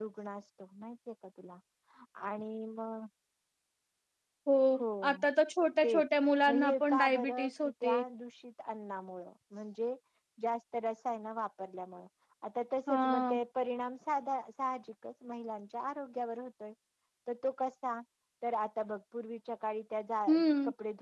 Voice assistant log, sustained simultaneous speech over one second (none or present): present